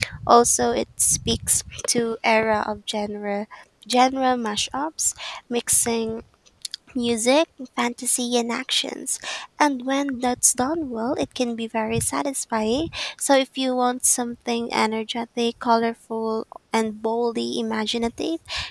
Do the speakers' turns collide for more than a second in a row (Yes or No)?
No